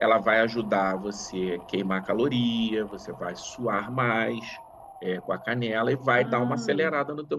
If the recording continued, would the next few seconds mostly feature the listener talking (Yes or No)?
No